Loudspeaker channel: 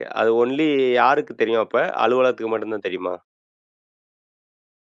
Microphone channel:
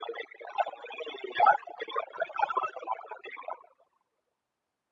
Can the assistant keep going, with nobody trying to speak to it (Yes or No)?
Yes